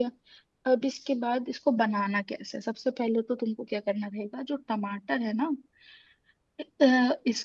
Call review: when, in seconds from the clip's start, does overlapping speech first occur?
none

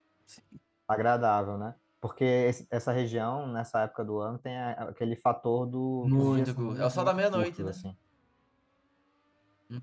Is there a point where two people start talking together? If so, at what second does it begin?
6.0 s

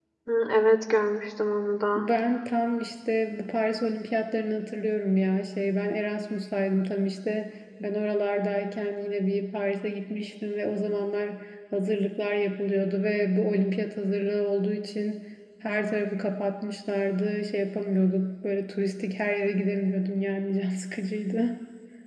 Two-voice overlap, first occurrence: none

